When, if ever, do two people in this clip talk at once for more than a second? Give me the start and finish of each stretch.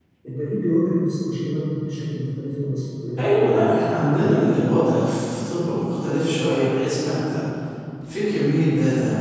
3.2-4.7

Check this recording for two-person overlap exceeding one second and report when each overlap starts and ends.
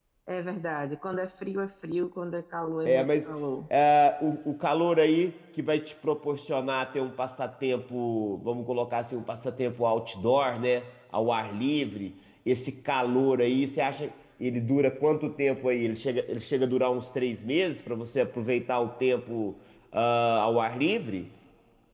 none

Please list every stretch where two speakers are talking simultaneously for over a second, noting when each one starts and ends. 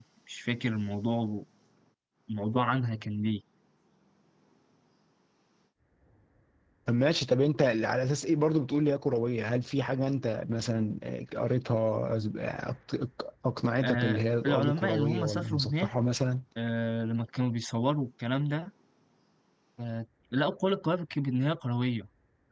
13.8-15.9

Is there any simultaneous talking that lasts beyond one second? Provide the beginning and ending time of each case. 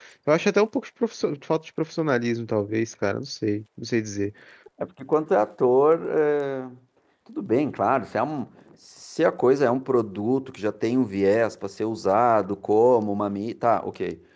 none

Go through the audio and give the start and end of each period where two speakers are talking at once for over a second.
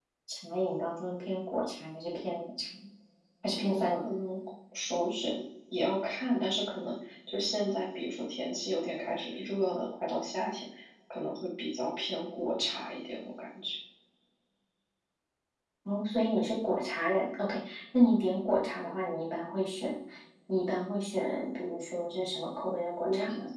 none

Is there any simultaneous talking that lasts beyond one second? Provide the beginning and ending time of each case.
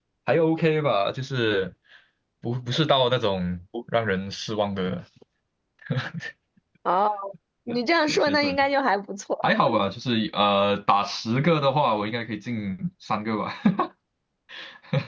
none

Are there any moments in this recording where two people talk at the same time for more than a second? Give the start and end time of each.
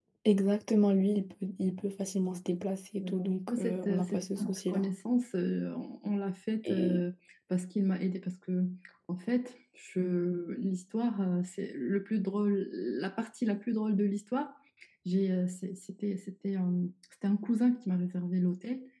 3.5-4.8

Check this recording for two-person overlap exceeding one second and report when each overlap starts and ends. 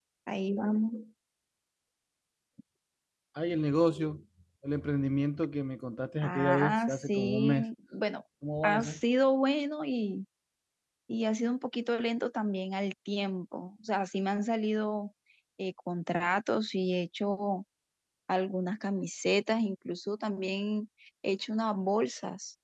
6.2-7.7

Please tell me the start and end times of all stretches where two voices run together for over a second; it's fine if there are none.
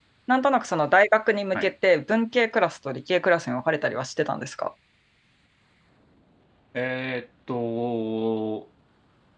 none

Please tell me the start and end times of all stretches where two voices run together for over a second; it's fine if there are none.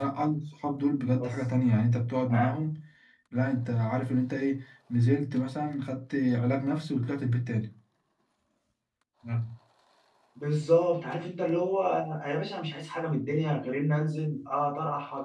none

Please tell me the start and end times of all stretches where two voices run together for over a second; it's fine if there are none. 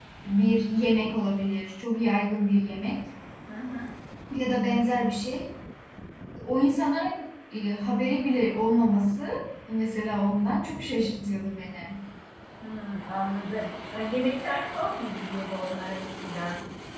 none

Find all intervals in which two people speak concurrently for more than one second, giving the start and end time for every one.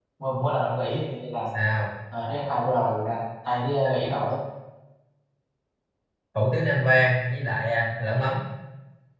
none

